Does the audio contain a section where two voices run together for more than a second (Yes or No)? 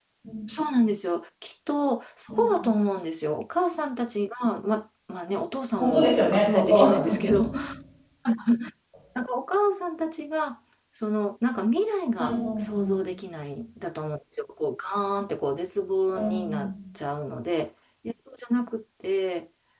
Yes